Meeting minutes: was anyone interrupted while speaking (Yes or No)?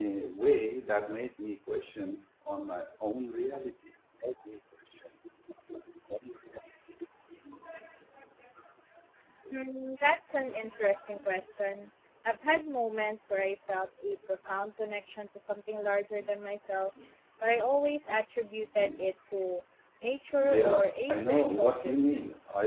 Yes